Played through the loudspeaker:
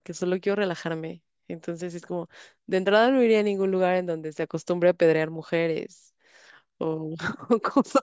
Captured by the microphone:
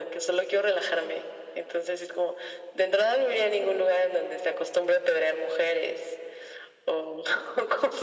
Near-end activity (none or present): none